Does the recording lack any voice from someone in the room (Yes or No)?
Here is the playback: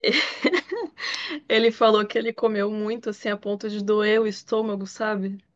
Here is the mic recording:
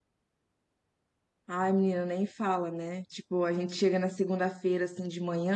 No